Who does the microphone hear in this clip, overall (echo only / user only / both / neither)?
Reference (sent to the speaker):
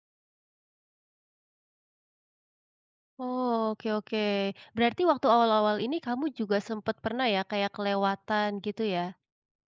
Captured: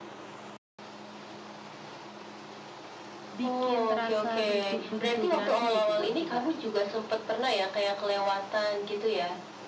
both